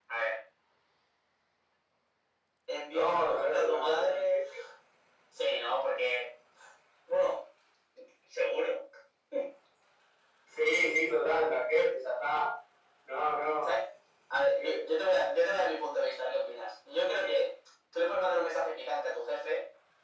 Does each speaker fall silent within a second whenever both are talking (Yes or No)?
No